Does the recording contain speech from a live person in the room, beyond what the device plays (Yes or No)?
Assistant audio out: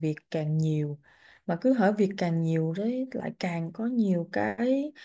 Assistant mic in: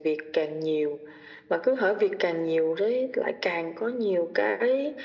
No